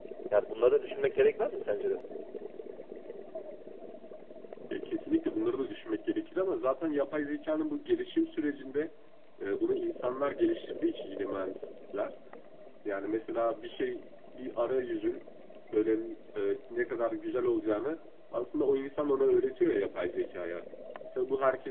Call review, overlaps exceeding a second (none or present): none